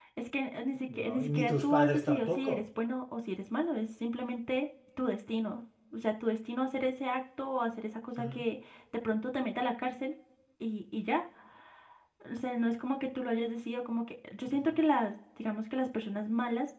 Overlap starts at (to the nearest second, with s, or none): 1 s